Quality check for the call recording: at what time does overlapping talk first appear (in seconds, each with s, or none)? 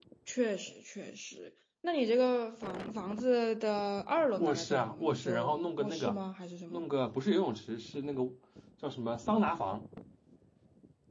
4.4 s